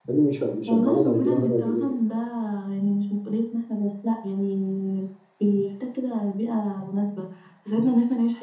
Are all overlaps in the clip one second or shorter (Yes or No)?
No